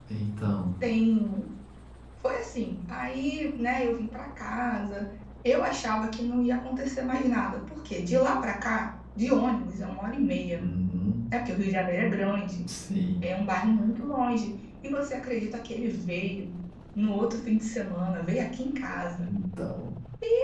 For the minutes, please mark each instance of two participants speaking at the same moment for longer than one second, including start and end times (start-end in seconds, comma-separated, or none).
none